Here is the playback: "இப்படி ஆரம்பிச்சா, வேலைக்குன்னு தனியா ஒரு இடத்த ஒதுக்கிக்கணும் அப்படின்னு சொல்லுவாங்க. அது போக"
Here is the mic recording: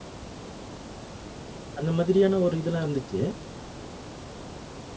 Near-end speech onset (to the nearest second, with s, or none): 2 s